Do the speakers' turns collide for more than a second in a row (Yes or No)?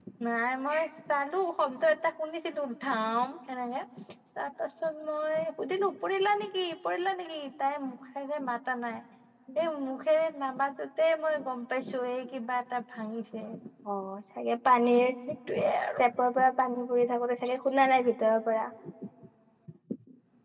No